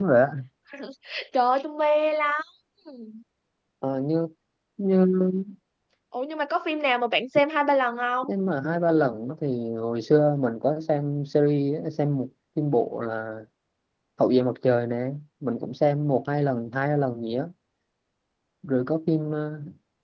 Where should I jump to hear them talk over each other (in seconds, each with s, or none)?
none